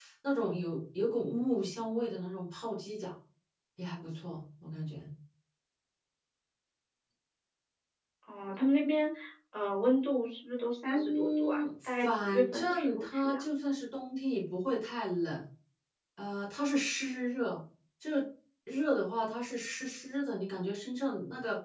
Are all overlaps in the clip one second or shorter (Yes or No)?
No